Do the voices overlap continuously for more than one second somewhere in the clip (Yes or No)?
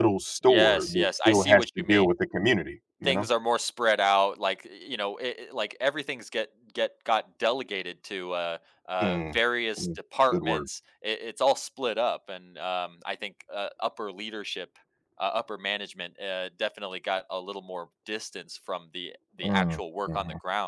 Yes